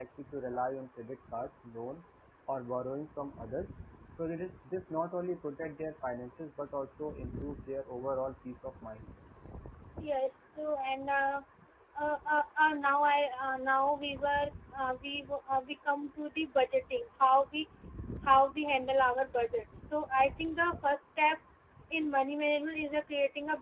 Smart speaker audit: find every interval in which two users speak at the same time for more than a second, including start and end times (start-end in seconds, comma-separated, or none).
none